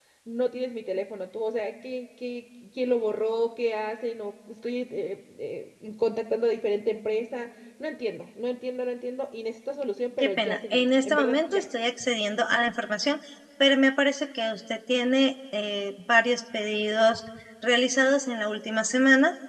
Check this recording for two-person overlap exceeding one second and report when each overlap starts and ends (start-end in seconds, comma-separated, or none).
10.2-11.6